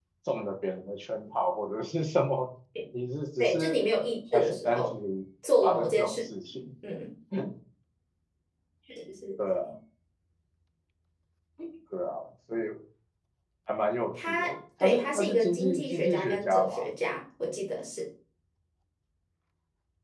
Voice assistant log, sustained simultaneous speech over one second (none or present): present